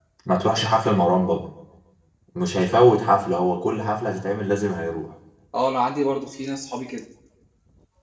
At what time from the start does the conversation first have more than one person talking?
none

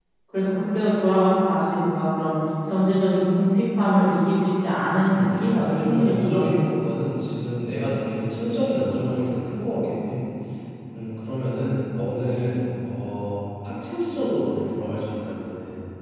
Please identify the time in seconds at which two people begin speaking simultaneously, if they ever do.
5.1 s

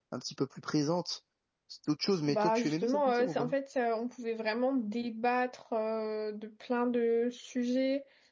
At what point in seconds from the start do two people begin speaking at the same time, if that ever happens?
2.3 s

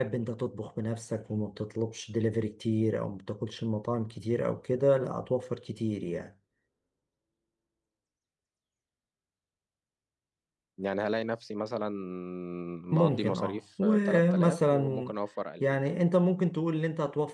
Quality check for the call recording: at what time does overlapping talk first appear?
12.9 s

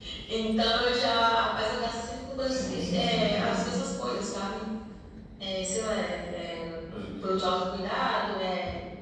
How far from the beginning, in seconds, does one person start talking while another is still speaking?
2.5 s

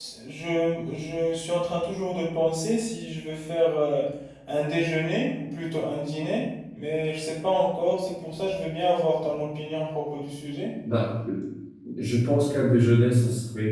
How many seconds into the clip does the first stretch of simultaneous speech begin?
none

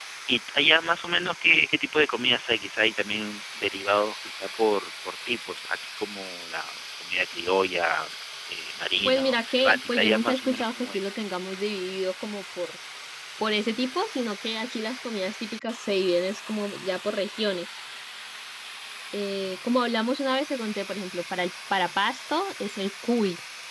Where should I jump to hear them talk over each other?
9.0 s

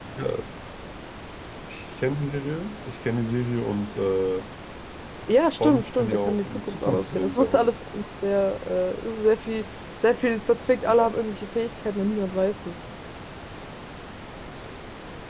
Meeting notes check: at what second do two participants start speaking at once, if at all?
5.6 s

